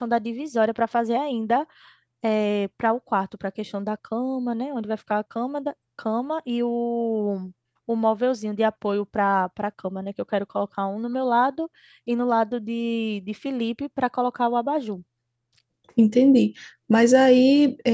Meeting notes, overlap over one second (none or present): none